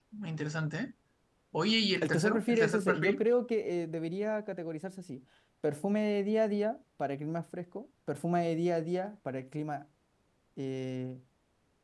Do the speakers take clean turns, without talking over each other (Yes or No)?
No